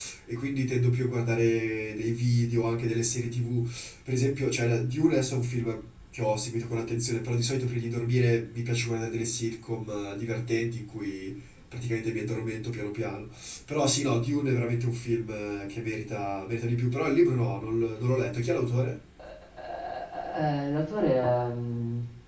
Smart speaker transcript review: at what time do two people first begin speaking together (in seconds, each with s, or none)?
none